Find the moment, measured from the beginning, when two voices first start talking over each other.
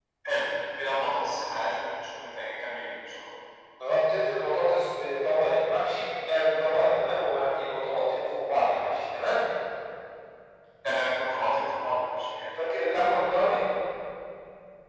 none

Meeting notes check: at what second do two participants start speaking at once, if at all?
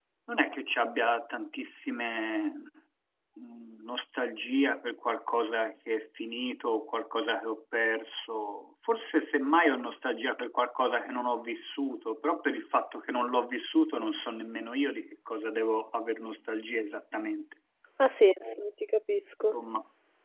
none

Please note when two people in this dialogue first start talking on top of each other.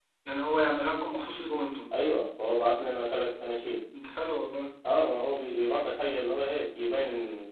none

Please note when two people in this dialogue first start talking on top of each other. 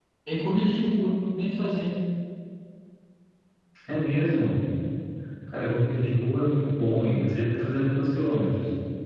none

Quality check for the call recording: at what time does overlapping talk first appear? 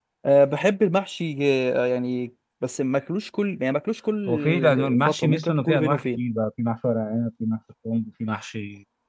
4.3 s

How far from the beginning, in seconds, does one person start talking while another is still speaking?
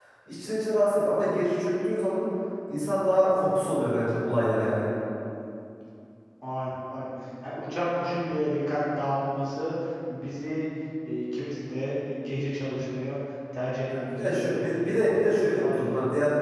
14.2 s

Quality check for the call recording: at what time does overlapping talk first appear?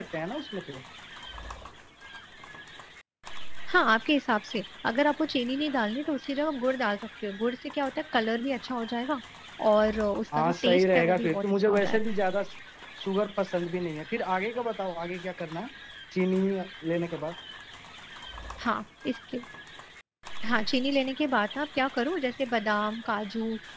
10.3 s

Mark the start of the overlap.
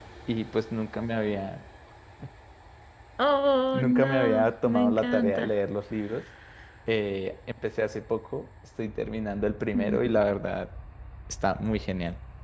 3.7 s

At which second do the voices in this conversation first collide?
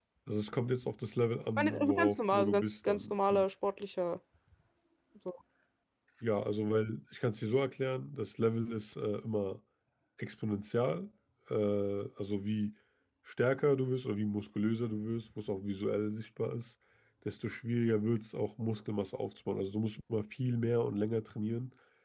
1.6 s

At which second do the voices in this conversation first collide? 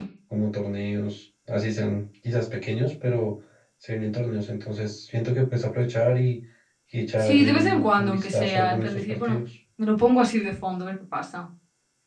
7.2 s

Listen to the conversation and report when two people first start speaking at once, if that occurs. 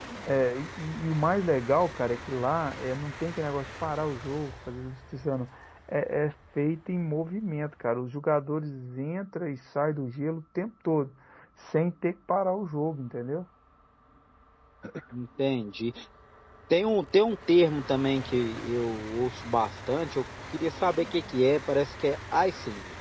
none

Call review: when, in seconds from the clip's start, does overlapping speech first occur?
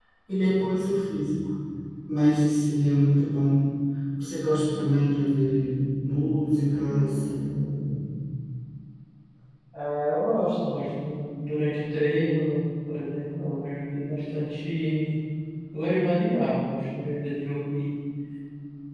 none

